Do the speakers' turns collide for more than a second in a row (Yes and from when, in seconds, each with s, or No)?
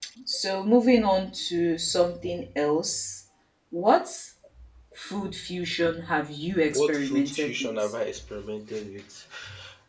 Yes, from 6.7 s